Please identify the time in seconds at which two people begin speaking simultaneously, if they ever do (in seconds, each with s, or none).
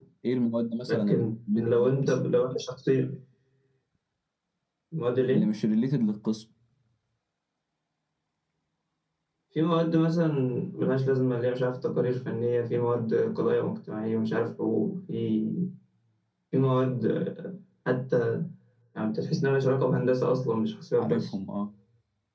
0.9 s